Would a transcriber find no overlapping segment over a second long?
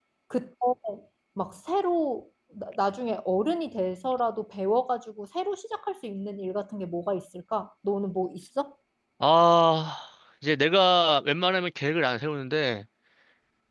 Yes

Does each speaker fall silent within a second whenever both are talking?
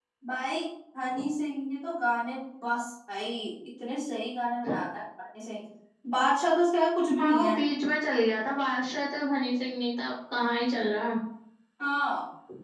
Yes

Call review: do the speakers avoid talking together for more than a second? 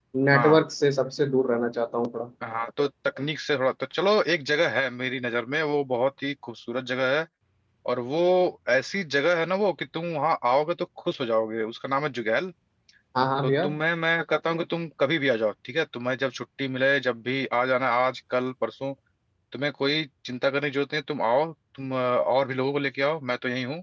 Yes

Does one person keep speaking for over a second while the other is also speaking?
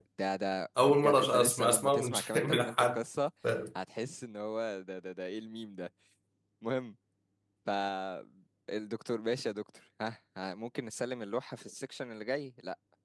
Yes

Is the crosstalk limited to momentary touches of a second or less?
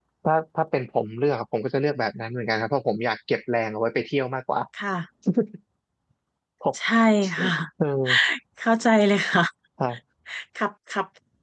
Yes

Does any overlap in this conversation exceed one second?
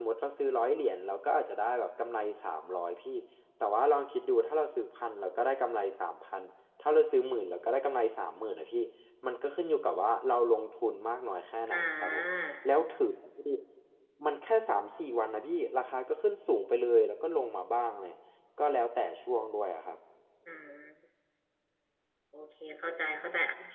No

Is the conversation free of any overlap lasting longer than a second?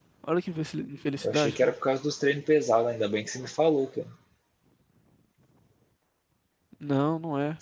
Yes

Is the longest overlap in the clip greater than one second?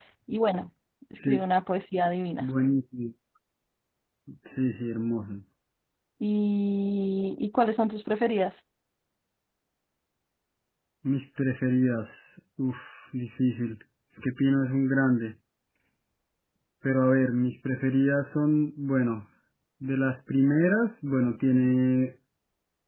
No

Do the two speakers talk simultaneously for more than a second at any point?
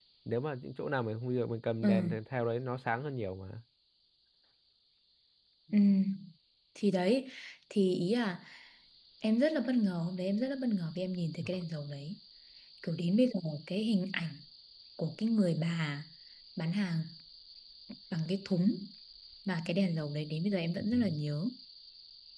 No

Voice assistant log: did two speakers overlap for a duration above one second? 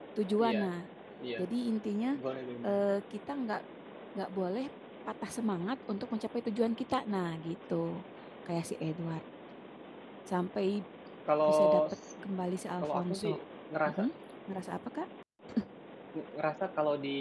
No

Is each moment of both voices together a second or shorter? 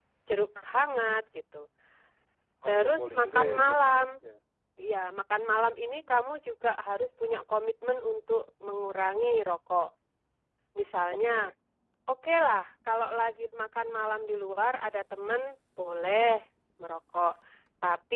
No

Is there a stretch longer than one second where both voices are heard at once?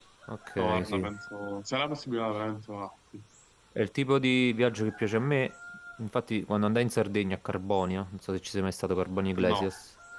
No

